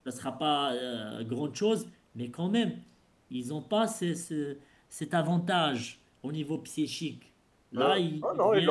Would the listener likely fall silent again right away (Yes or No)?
No